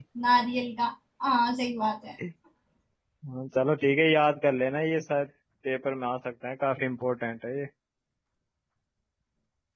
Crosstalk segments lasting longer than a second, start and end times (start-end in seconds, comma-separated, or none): none